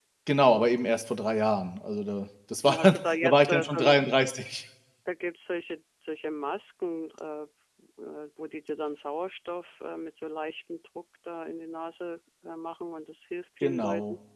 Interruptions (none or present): present